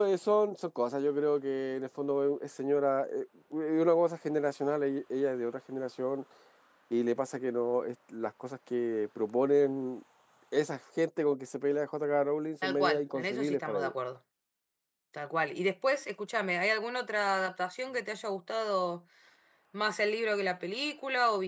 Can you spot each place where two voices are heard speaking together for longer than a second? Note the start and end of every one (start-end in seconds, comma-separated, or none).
12.6-13.9